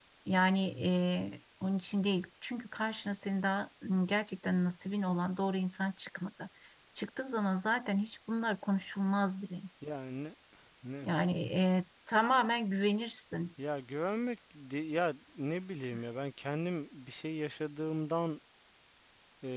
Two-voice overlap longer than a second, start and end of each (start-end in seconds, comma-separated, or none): none